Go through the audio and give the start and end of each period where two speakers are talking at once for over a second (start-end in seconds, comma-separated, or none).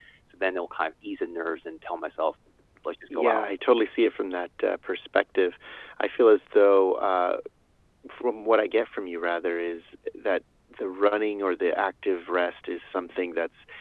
none